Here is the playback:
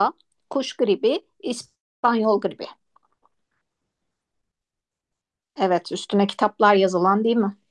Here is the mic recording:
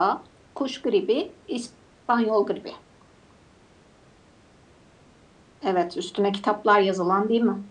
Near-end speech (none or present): none